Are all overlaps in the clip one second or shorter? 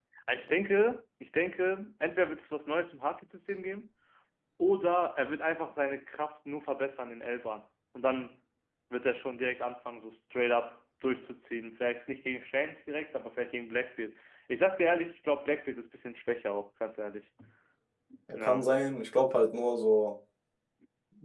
Yes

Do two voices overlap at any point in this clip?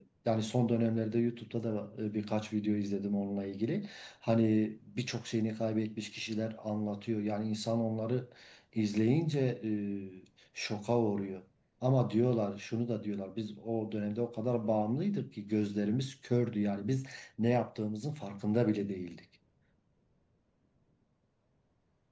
No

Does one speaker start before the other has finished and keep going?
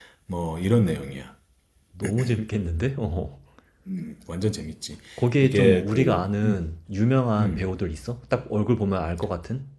Yes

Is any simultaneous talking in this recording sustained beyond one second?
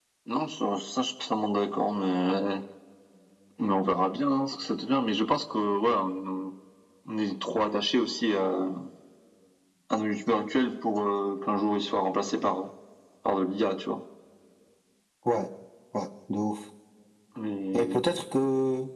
No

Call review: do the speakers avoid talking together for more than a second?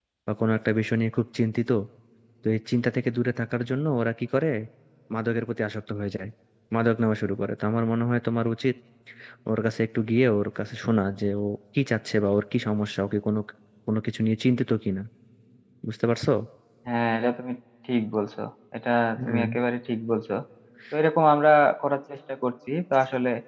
Yes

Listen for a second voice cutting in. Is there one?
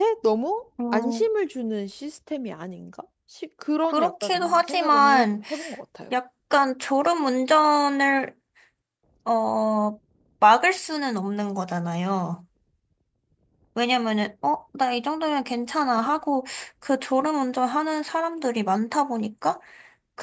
Yes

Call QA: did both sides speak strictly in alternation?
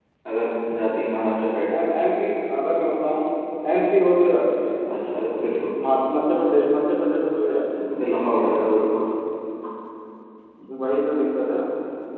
Yes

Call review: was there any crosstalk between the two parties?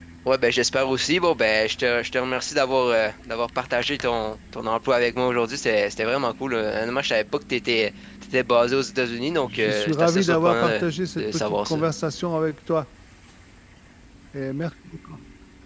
Yes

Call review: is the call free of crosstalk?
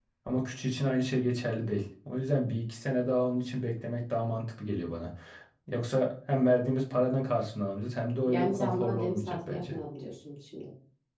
No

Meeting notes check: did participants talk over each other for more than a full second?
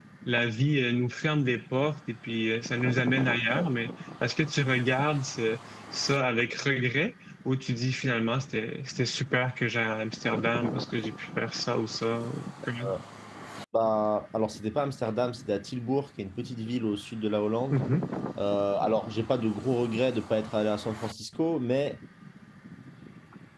No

